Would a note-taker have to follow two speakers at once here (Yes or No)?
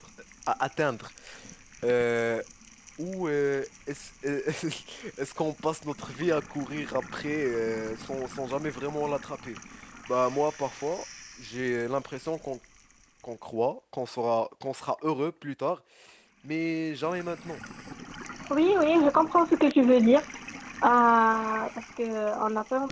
No